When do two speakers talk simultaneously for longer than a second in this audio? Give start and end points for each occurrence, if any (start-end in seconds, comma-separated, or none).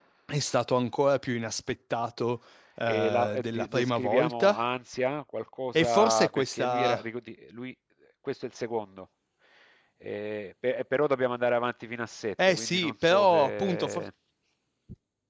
2.9-4.6, 5.7-7.0, 12.5-14.0